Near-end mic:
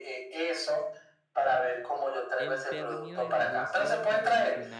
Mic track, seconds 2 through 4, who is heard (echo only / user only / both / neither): both